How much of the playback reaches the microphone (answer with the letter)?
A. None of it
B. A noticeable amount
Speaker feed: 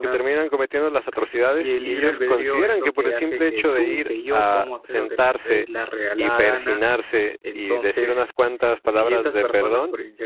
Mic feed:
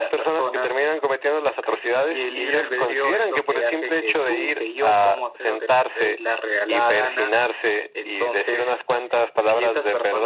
B